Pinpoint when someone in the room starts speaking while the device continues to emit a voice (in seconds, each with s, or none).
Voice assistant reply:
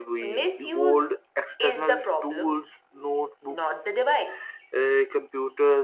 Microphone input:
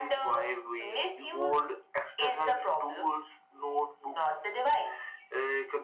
none